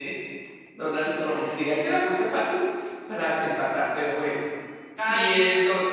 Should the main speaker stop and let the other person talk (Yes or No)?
No